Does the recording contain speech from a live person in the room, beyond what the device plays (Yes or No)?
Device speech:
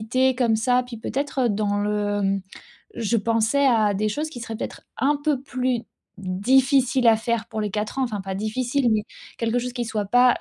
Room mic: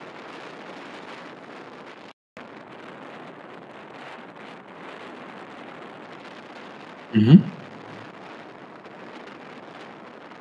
Yes